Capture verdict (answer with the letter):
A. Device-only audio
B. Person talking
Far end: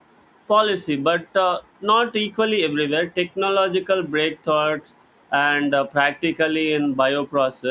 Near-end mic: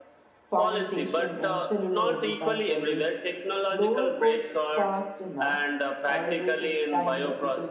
B